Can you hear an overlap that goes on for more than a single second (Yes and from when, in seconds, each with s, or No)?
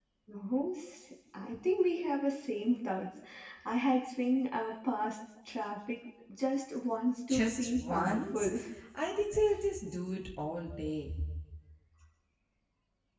Yes, from 7.3 s